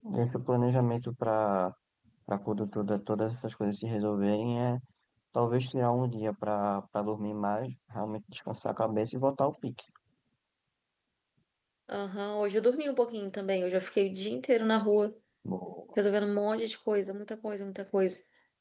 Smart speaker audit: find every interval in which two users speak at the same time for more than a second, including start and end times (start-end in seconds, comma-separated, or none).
none